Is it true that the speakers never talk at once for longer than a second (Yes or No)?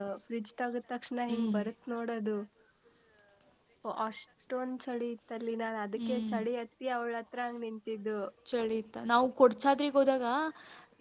Yes